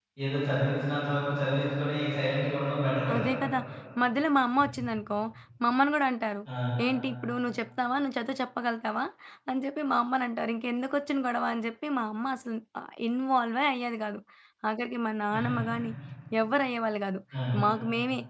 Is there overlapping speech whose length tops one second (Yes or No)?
No